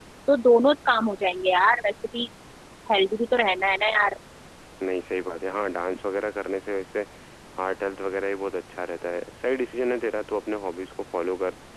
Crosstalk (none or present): none